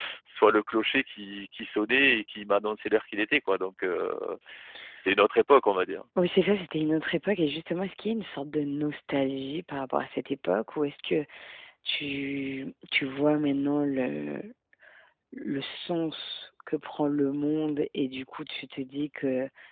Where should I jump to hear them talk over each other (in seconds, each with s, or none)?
none